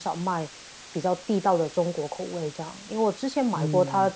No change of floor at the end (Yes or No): Yes